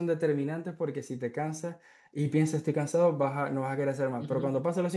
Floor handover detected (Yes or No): No